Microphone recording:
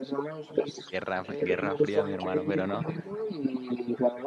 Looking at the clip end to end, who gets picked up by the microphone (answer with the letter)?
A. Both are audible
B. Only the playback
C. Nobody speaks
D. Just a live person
A